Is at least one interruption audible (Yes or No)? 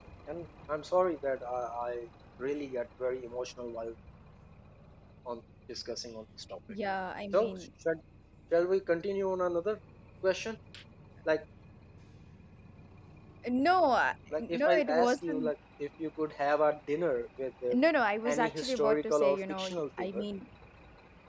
Yes